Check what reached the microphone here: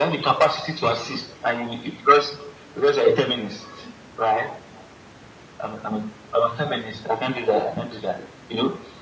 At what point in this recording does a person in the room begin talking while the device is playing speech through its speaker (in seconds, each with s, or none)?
none